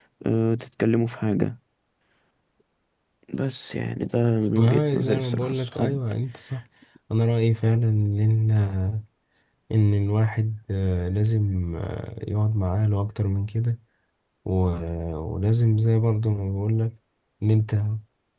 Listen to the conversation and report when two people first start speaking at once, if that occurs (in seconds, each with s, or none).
4.6 s